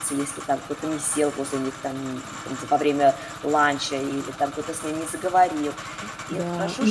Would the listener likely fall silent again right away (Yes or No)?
No